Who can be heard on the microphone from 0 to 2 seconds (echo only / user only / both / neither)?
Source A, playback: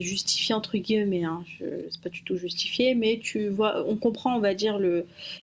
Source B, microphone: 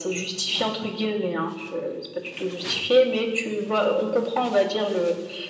echo only